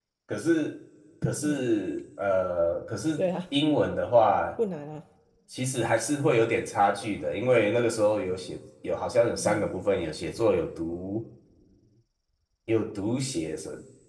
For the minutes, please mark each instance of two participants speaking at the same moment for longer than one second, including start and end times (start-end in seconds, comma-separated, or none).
none